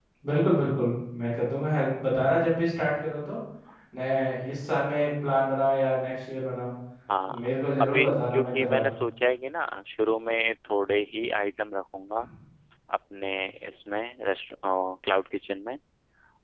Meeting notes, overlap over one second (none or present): present